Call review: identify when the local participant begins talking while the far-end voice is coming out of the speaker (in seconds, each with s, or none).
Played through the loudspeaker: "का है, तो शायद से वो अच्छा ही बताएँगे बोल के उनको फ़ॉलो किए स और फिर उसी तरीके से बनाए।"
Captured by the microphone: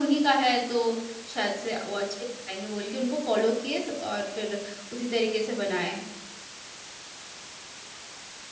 none